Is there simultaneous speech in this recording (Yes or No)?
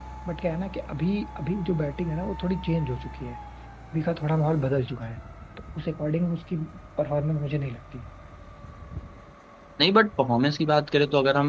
No